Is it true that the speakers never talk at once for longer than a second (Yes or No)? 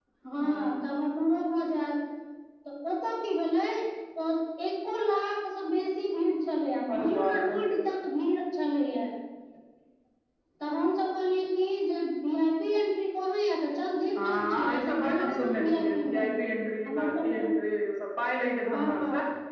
No